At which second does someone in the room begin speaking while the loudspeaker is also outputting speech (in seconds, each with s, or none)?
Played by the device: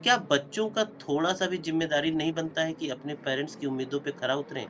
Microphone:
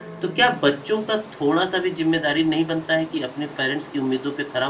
none